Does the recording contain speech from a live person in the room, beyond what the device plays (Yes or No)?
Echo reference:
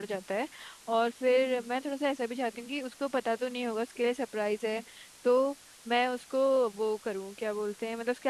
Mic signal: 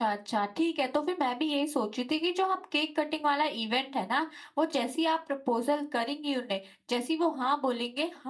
Yes